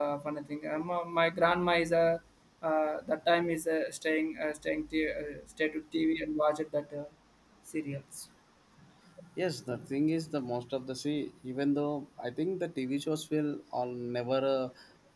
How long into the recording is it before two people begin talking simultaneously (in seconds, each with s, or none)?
none